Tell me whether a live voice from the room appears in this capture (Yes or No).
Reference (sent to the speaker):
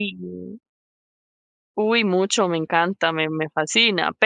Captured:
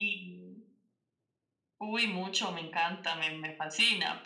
No